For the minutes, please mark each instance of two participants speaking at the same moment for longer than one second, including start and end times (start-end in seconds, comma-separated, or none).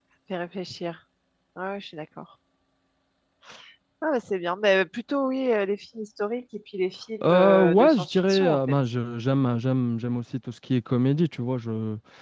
7.3-8.6